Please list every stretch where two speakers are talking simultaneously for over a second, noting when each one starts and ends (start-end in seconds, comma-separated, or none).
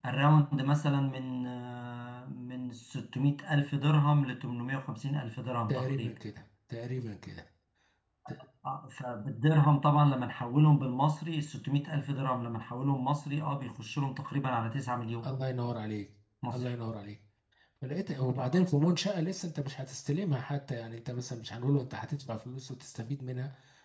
none